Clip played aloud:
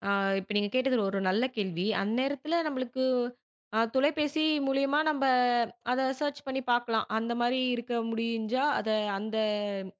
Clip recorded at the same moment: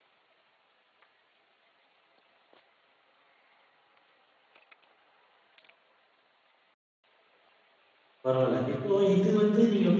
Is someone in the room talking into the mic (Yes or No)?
Yes